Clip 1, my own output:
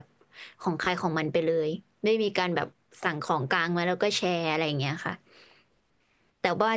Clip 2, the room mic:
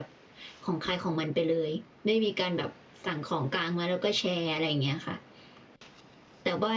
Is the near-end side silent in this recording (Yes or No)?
Yes